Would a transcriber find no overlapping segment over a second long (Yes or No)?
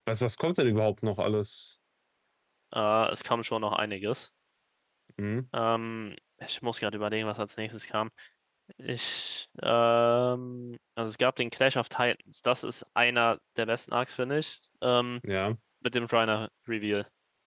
Yes